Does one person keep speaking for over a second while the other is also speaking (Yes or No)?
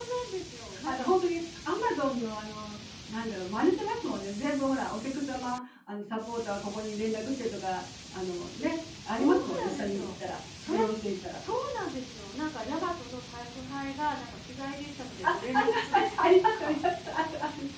Yes